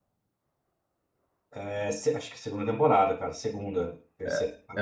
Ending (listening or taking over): taking over